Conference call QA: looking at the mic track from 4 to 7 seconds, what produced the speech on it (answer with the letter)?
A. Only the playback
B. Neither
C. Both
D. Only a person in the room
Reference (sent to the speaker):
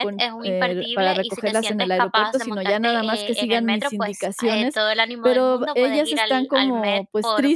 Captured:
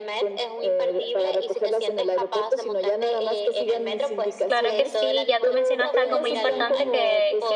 C